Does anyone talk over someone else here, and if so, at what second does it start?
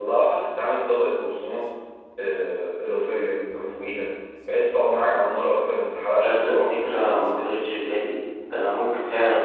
6.2 s

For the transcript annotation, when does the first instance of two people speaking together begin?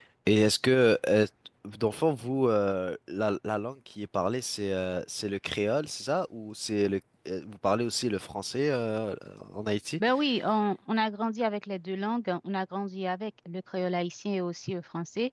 none

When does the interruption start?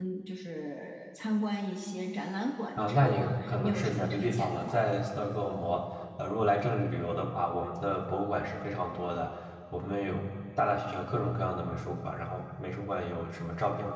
2.8 s

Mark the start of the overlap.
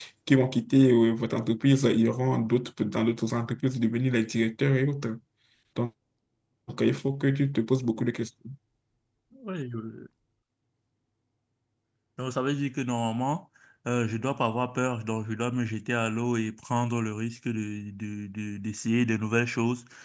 none

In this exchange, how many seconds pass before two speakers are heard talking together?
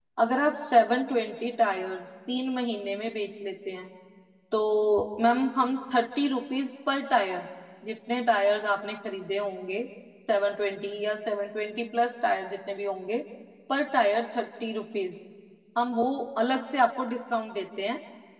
none

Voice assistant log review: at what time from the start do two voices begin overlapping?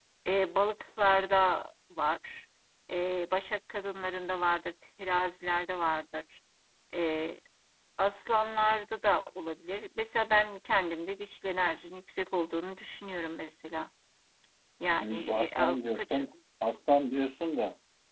15.0 s

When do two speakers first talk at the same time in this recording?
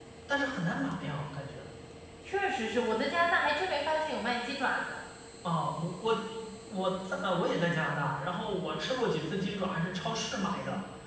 none

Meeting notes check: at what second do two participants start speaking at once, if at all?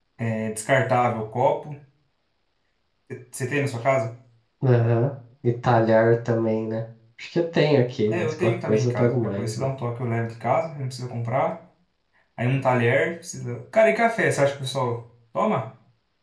8.1 s

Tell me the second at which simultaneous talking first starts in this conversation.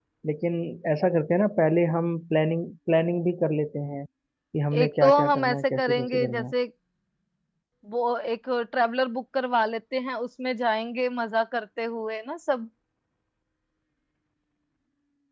4.7 s

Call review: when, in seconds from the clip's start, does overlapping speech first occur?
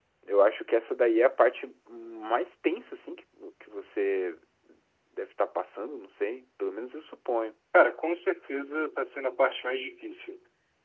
none

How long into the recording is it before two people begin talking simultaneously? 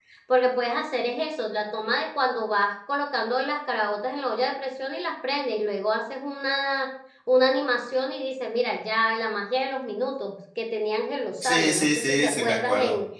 11.4 s

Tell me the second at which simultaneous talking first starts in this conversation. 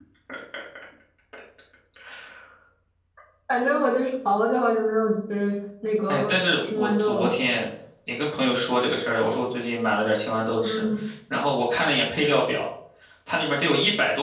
6.1 s

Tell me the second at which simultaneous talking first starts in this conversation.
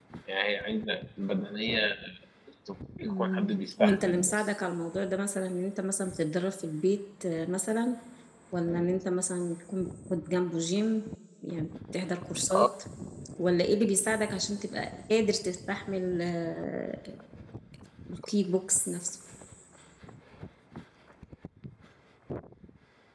3.0 s

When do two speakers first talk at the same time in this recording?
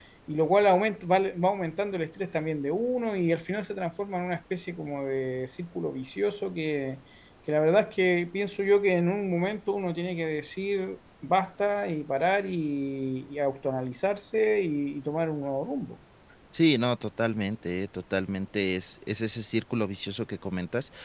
none

